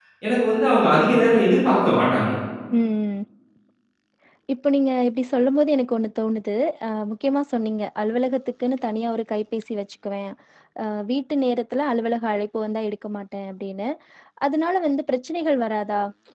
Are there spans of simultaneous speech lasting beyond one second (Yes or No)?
No